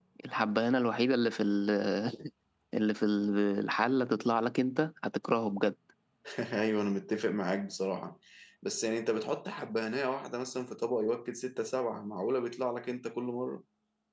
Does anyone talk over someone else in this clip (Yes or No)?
No